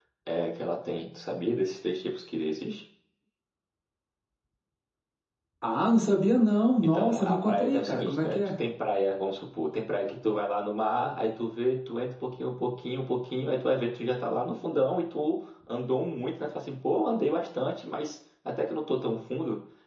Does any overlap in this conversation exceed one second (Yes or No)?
Yes